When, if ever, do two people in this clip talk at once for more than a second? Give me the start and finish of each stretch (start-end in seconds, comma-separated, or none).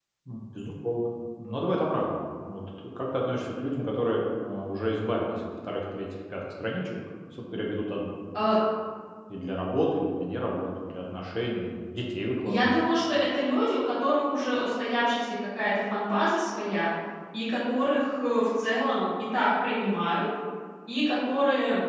none